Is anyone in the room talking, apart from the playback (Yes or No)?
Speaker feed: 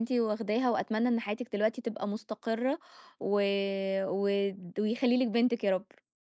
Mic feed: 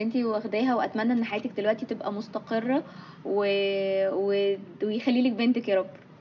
No